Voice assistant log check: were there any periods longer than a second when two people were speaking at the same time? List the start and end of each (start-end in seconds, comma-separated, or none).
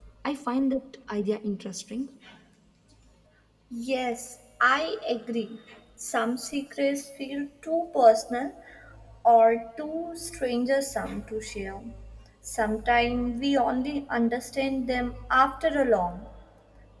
none